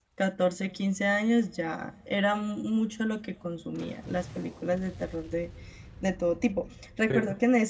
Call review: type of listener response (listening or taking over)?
listening